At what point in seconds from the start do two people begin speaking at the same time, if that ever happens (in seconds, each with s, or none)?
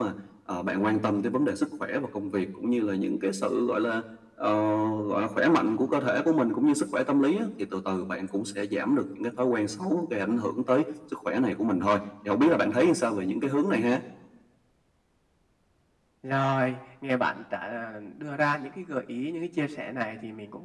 none